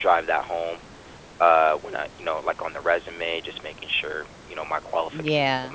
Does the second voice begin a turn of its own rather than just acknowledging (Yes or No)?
Yes